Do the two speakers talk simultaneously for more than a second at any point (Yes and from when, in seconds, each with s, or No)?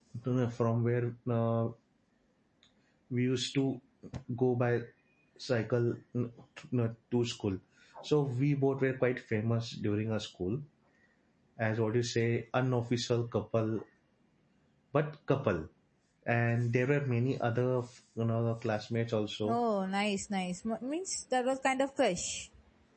No